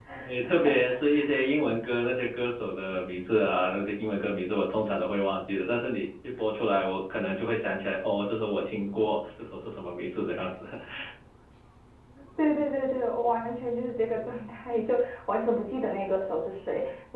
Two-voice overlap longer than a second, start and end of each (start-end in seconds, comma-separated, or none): none